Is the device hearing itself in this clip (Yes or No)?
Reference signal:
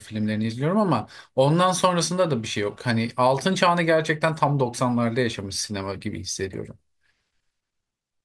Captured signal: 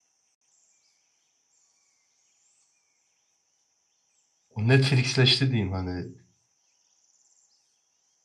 No